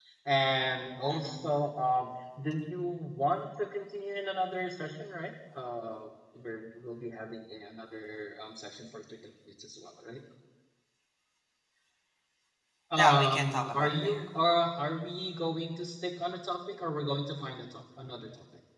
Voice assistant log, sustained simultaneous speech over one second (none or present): present